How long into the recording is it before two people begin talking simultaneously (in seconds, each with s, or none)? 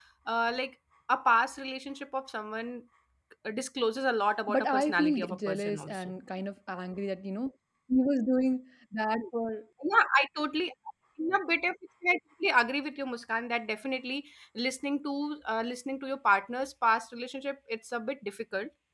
4.5 s